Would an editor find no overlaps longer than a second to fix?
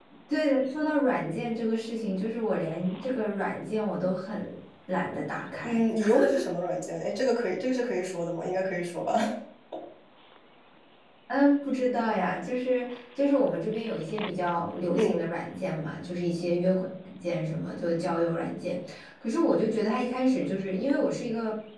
Yes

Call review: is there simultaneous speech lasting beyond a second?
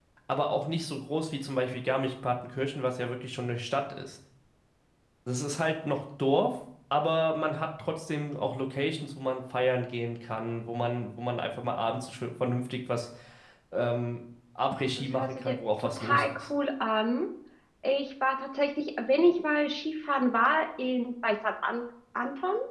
Yes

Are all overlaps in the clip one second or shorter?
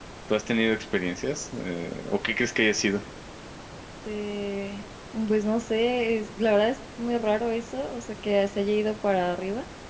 Yes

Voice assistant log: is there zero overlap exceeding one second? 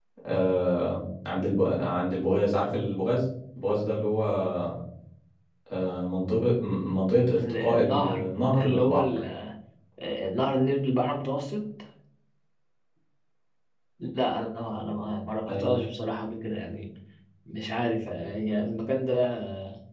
No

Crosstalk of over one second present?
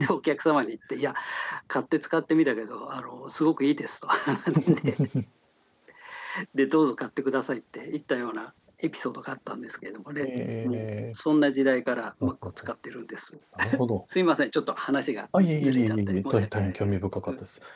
Yes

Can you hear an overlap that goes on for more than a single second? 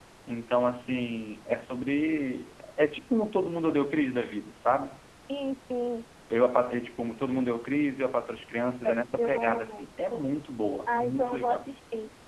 Yes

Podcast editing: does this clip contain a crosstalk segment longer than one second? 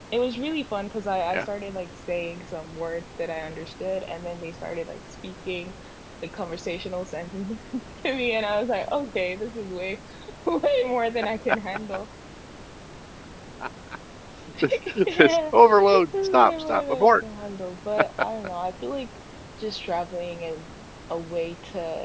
Yes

